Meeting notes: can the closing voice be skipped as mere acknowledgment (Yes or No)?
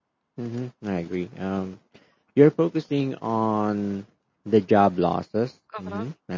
Yes